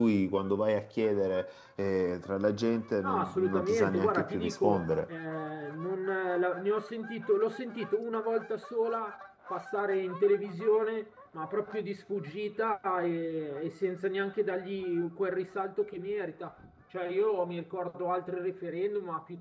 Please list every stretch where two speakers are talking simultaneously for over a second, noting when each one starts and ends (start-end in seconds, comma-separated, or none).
3.0-4.9